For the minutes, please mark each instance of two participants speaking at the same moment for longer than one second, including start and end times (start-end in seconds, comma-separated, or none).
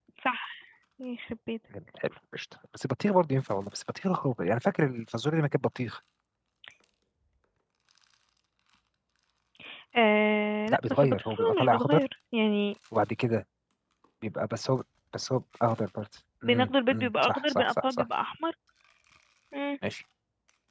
10.7-12.0, 16.4-18.1